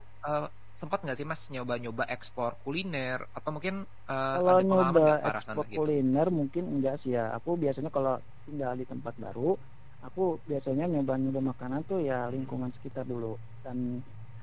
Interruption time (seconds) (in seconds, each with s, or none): 4.3 s